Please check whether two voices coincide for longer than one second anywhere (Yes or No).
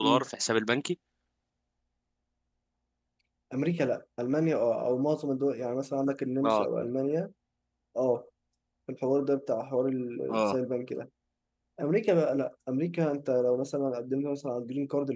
No